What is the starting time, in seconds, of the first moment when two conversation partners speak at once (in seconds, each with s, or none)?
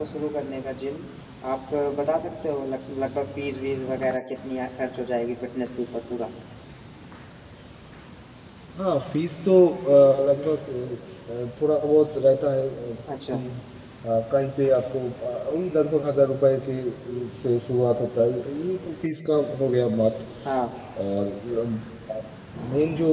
none